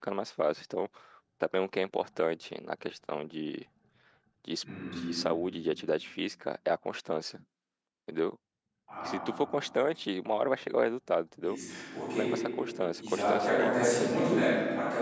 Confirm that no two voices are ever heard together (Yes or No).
No